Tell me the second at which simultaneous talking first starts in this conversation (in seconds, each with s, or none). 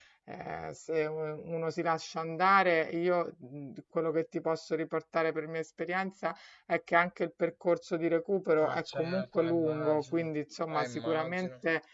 8.6 s